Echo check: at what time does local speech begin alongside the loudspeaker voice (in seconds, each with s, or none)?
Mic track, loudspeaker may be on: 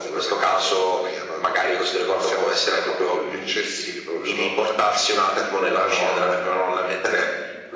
none